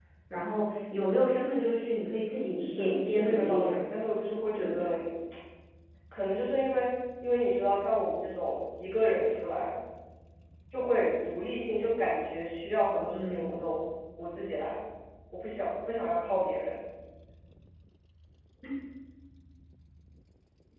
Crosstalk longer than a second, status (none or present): present